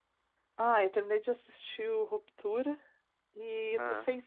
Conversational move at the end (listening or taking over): listening